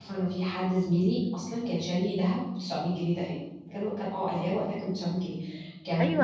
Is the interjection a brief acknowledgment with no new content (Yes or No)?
No